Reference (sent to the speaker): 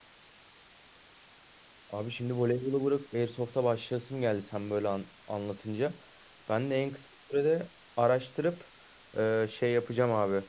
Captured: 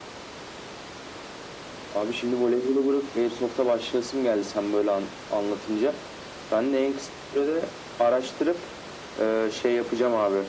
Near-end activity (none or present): none